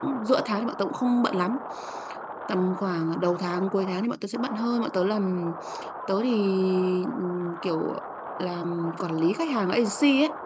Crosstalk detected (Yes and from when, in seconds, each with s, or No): No